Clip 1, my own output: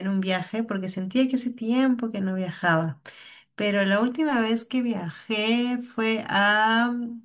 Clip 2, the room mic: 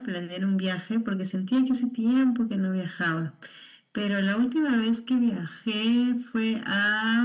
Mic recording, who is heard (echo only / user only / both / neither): echo only